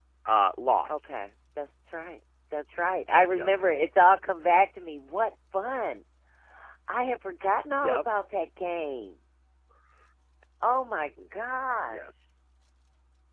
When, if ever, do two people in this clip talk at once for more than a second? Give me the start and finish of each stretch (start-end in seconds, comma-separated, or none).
none